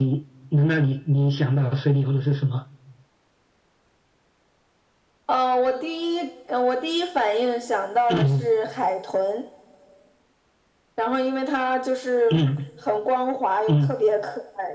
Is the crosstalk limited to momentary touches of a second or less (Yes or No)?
Yes